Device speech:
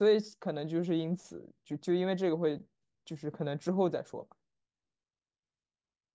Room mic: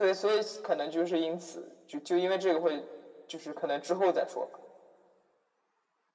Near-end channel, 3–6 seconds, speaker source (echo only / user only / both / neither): echo only